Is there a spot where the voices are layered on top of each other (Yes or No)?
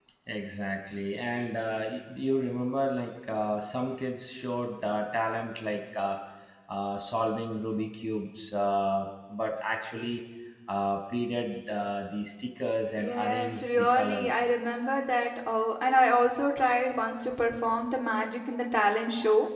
Yes